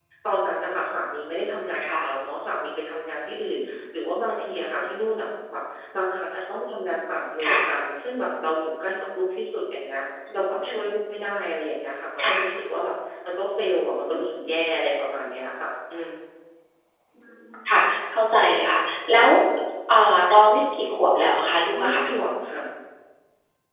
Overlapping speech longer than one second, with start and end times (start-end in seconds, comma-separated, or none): none